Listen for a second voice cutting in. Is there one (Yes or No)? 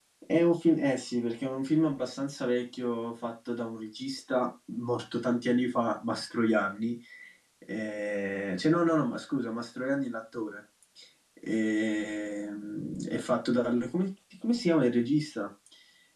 No